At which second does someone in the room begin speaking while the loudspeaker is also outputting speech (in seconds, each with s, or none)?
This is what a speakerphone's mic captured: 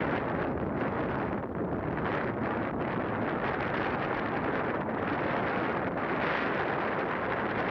none